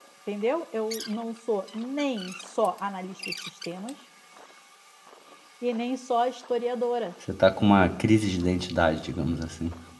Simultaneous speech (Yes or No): No